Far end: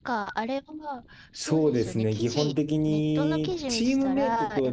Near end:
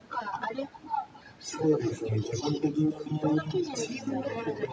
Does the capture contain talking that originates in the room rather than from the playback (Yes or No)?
Yes